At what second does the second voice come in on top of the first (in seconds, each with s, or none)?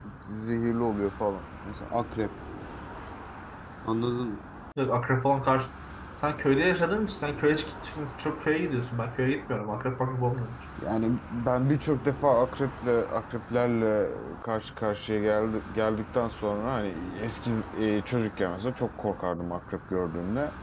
none